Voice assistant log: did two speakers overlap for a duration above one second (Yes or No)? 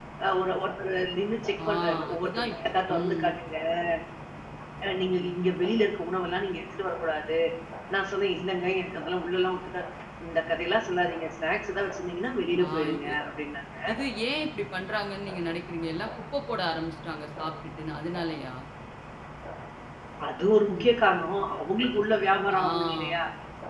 Yes